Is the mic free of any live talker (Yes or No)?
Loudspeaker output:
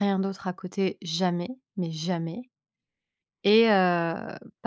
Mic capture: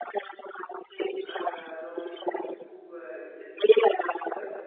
No